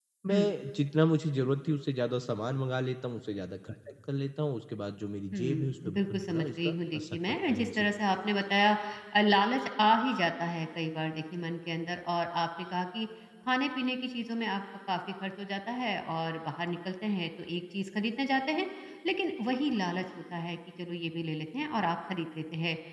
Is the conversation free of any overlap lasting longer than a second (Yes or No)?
No